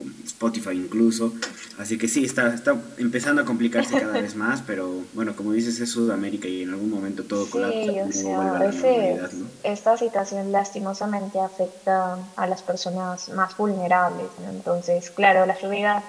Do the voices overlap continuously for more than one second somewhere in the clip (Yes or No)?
Yes